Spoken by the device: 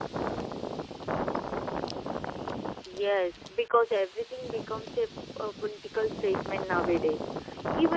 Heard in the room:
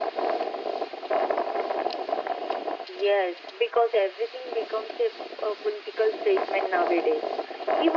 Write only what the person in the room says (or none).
none